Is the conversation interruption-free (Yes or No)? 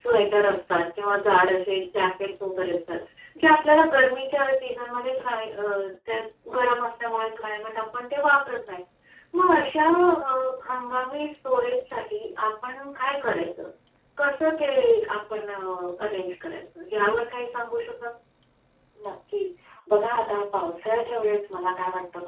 Yes